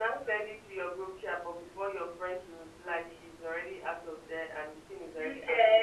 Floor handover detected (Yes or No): Yes